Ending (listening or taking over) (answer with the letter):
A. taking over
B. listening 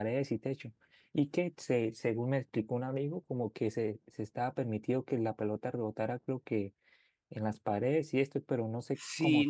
A